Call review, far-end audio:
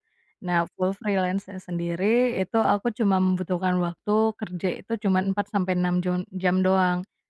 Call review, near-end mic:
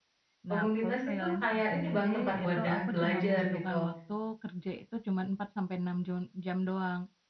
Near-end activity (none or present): present